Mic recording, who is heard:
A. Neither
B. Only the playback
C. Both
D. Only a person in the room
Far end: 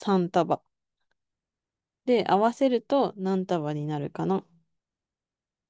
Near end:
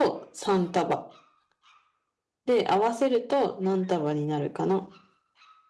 B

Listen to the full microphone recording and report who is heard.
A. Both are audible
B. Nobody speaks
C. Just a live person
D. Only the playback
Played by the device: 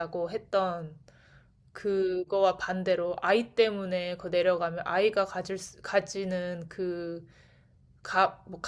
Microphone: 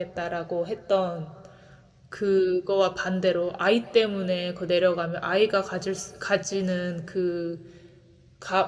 D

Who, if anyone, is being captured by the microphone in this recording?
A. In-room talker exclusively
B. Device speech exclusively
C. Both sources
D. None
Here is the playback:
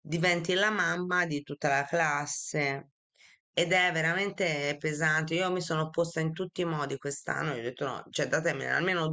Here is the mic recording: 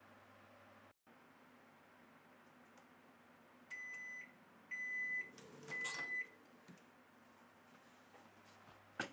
D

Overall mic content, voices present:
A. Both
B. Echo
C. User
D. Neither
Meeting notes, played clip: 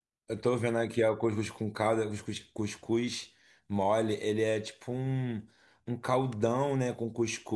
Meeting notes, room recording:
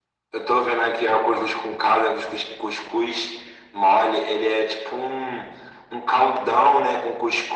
B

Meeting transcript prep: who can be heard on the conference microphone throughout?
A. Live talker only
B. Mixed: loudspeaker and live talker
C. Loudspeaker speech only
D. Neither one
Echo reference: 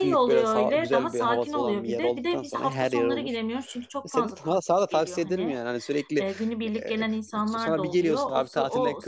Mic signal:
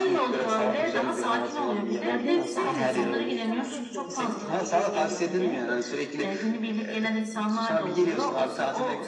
B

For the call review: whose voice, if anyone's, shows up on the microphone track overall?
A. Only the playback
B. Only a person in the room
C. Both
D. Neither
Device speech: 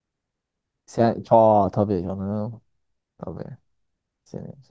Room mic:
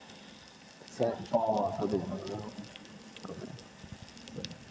A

